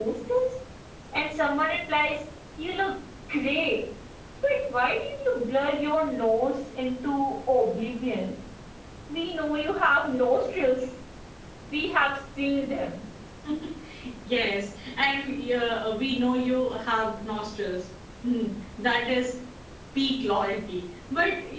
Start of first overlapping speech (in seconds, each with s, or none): none